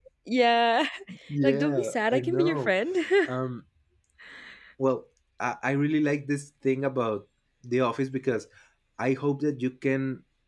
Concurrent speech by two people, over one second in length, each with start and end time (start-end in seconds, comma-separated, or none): 1.4-2.7